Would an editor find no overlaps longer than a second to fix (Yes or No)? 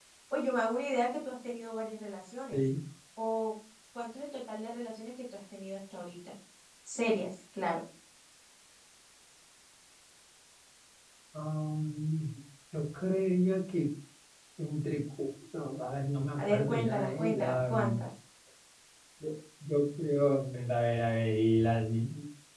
No